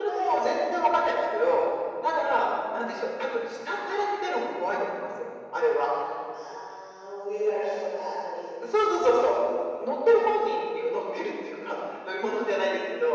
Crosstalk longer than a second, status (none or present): none